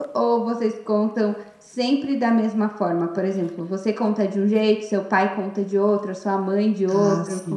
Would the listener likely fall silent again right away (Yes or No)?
No